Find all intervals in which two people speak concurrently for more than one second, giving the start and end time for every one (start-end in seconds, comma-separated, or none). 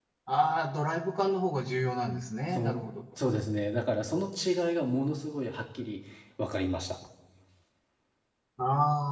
none